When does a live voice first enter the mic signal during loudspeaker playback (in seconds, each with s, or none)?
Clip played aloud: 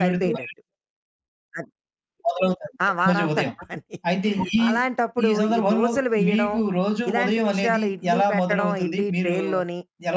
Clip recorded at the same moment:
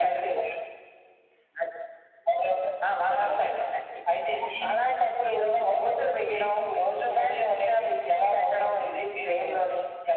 none